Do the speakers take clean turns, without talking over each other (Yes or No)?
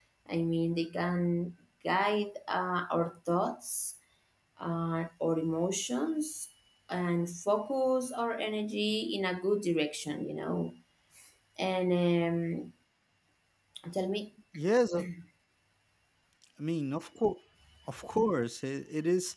Yes